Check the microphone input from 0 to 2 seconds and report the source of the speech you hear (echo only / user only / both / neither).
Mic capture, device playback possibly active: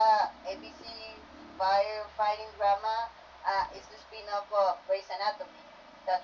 echo only